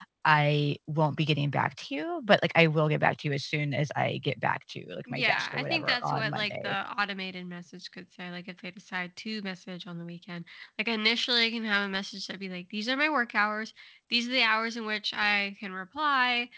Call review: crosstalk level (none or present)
present